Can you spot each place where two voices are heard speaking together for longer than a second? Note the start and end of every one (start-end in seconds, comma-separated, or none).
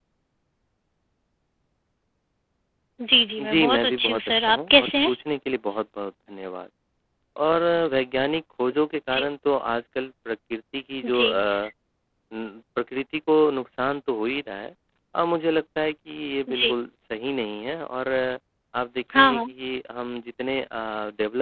3.5-5.1